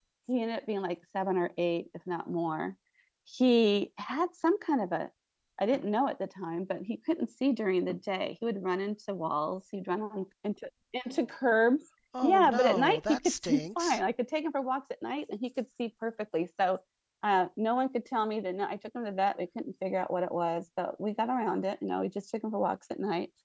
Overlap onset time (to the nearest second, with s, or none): 12 s